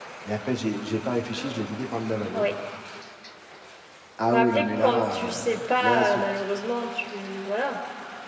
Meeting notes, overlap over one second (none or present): present